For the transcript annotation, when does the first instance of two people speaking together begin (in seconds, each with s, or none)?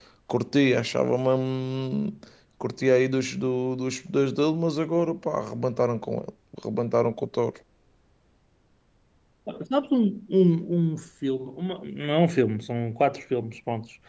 none